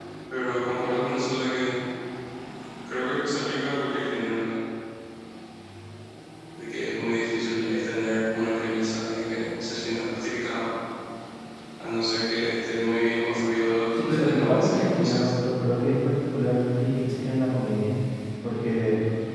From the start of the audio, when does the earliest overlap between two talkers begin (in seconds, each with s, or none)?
13.9 s